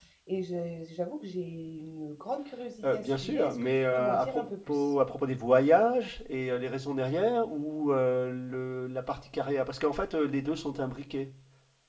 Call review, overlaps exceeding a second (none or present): present